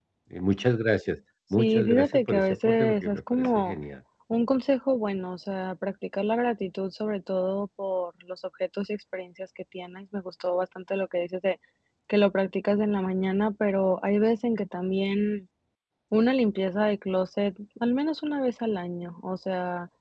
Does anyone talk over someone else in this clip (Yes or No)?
Yes